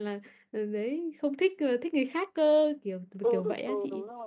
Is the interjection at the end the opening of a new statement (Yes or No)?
Yes